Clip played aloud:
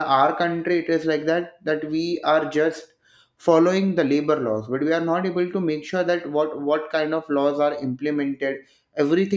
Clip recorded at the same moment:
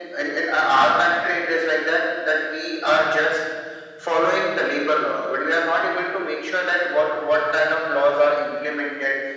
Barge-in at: none

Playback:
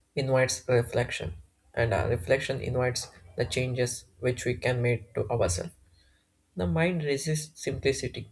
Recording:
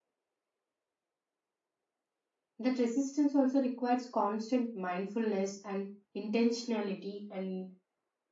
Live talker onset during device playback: 2.6 s

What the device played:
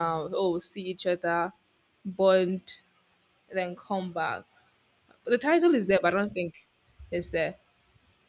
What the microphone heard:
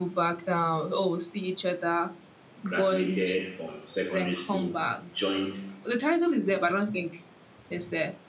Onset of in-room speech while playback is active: 2.6 s

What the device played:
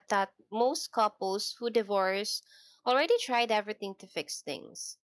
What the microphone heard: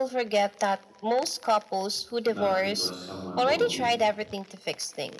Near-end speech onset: 2.2 s

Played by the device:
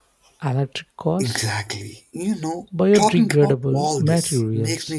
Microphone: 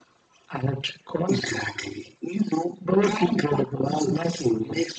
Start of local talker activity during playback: none

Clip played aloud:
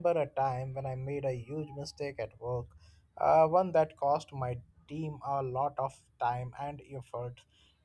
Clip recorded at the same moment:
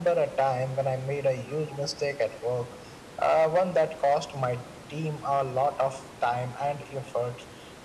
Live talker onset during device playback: none

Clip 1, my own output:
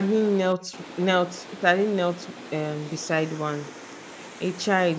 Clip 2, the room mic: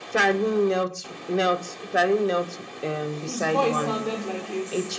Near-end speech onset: 3.3 s

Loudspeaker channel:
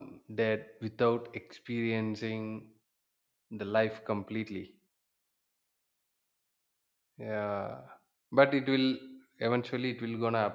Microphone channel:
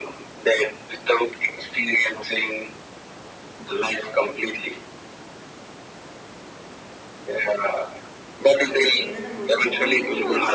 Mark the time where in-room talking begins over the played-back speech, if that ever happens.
8.7 s

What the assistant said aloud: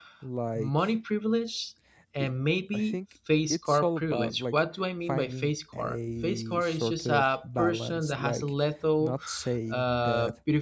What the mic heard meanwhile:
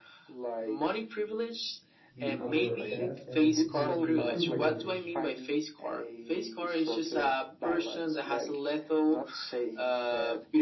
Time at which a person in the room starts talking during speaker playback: 2.1 s

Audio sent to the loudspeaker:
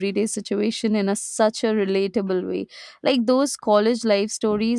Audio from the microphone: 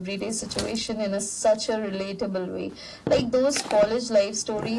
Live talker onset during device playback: none

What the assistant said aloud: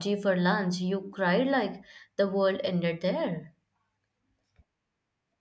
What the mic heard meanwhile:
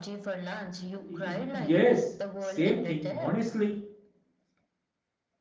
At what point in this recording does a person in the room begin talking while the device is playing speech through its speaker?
0.9 s

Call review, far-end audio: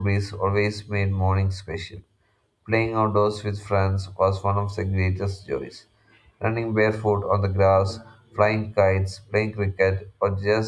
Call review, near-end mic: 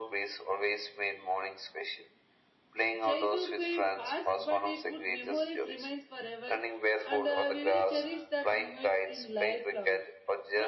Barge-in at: 3.0 s

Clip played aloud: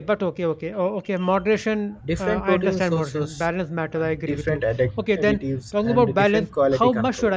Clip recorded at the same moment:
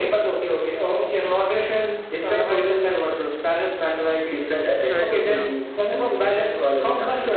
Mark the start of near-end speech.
4.8 s

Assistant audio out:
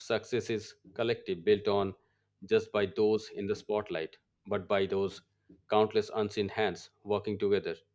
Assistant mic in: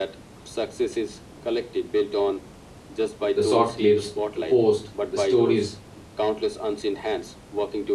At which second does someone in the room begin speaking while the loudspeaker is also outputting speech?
3.3 s

